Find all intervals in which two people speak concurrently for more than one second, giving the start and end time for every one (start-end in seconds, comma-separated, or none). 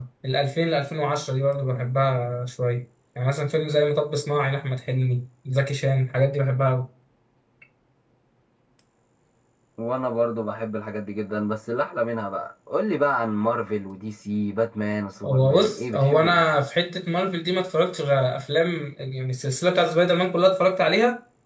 15.2-16.4